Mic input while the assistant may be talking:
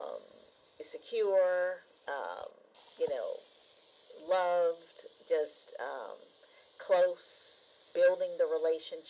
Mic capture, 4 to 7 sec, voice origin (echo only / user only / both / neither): echo only